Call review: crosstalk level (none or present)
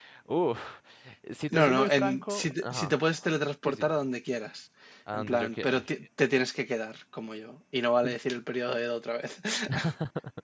present